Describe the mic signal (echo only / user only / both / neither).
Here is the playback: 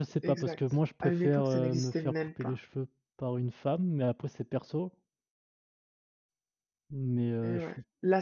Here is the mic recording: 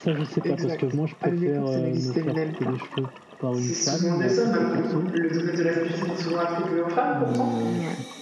both